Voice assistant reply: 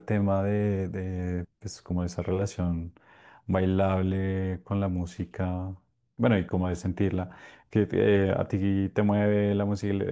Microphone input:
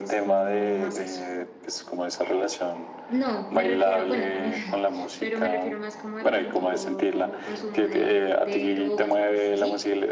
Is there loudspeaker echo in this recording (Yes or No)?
Yes